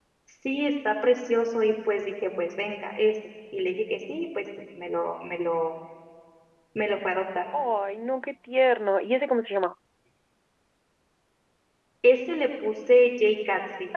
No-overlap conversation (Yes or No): Yes